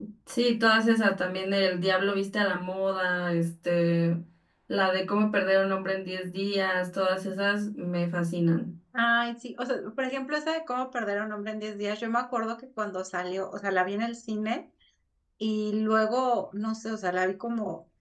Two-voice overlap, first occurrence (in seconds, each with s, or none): none